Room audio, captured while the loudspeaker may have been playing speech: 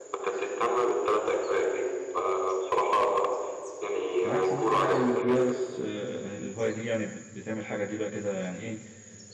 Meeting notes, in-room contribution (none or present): present